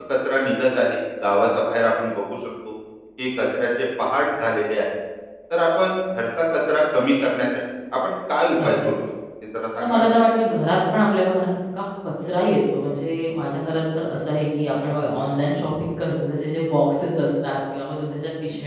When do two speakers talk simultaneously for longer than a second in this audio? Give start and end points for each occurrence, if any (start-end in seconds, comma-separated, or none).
none